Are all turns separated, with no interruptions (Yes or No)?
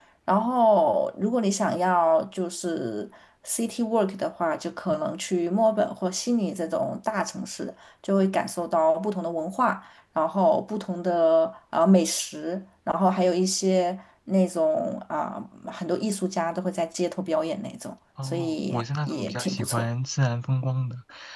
No